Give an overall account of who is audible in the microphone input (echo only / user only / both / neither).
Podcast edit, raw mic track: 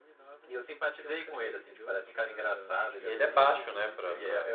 both